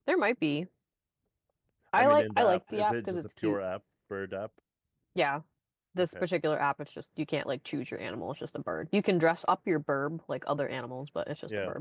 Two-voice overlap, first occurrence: 1.9 s

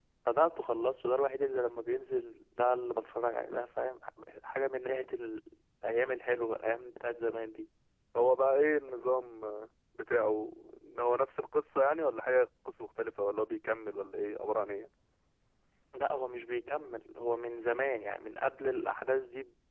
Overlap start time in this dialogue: none

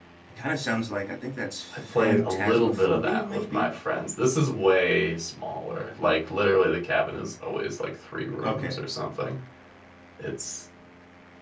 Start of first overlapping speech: 1.7 s

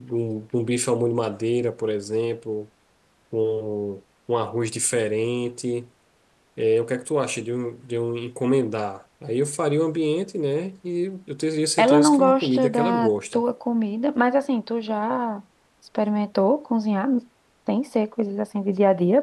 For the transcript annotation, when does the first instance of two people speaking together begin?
11.8 s

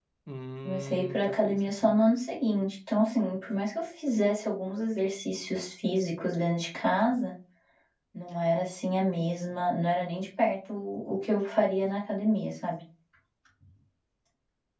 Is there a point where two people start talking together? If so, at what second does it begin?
0.7 s

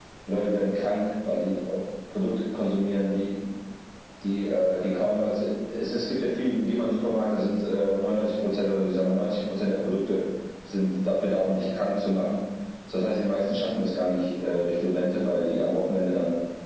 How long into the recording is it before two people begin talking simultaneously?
none

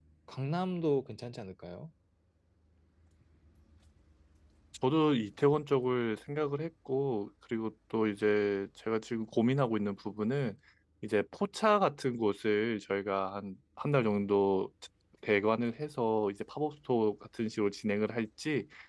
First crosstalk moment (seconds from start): none

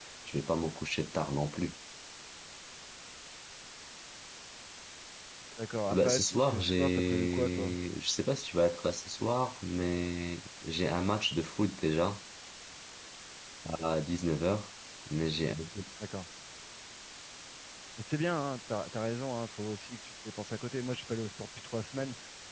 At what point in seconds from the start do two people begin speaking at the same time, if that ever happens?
5.9 s

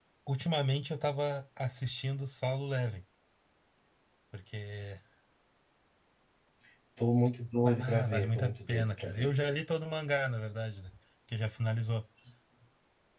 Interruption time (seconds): 7.6 s

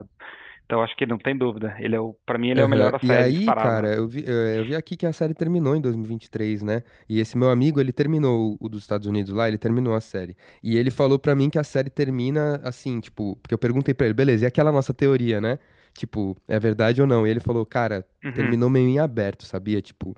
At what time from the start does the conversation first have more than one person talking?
2.6 s

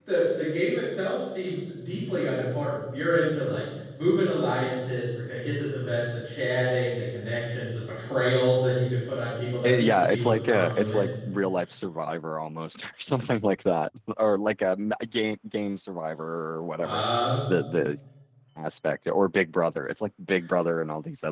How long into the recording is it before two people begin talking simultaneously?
9.6 s

